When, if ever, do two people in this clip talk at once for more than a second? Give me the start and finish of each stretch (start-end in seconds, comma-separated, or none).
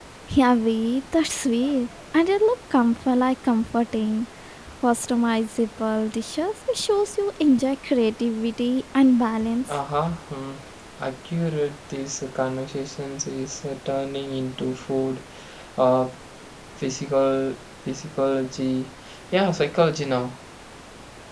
none